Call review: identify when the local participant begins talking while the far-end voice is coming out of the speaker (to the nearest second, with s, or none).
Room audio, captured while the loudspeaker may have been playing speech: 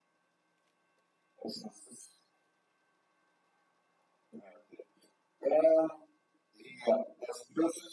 none